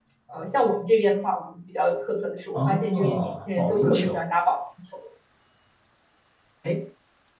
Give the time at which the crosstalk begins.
2.5 s

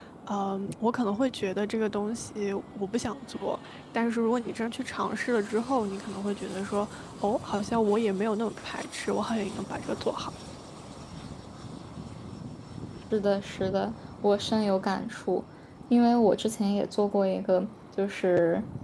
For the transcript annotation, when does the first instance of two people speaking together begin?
none

